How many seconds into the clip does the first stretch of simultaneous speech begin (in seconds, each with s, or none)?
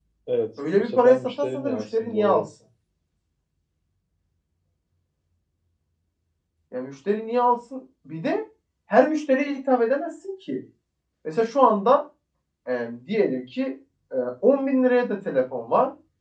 0.8 s